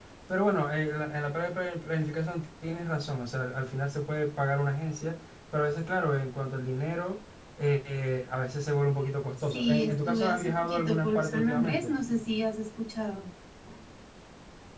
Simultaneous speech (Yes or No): Yes